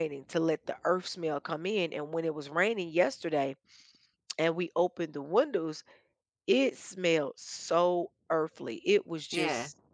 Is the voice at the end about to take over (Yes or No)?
No